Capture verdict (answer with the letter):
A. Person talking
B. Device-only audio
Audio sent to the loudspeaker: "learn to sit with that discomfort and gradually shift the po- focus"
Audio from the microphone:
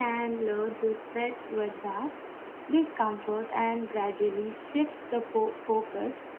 B